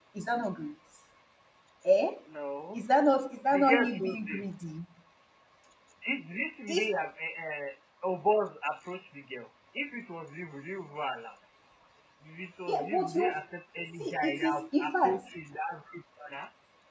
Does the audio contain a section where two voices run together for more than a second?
Yes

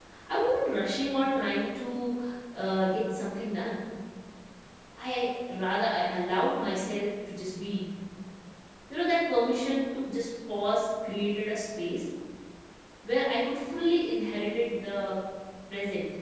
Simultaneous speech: No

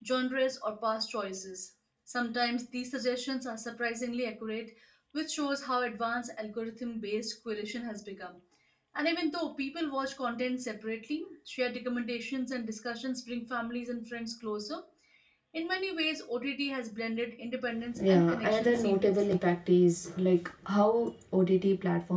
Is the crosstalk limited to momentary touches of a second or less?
No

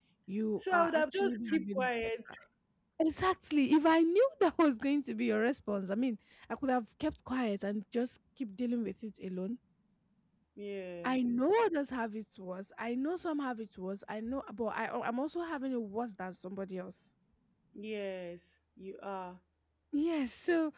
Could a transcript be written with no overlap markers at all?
No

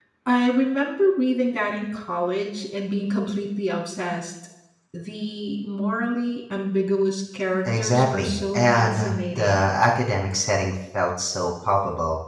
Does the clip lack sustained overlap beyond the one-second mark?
No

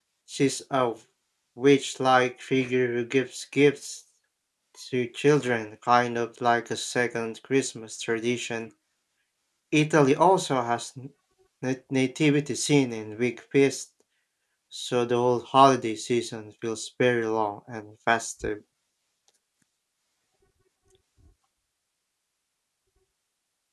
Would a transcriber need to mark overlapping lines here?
No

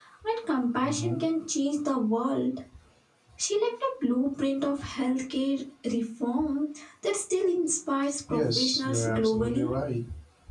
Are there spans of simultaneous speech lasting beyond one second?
Yes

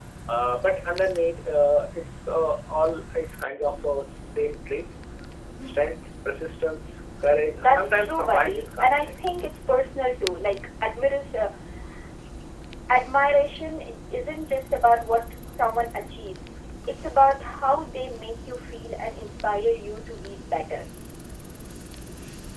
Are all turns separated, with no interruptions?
No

